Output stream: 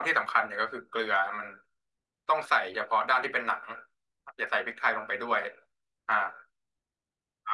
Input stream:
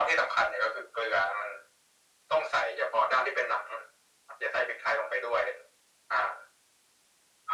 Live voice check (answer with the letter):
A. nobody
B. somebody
A